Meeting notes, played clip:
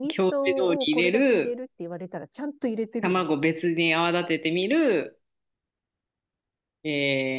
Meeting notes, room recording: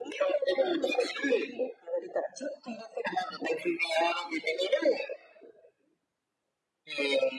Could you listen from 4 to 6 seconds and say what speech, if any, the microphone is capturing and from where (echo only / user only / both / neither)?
echo only